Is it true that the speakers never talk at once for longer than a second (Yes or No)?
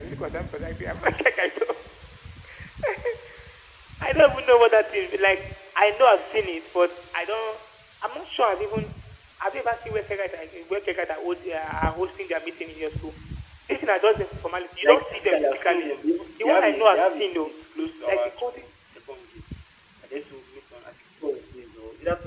No